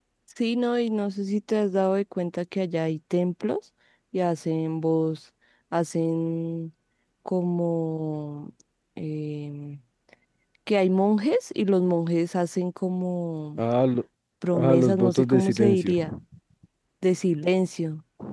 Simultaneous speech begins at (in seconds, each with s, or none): 14.5 s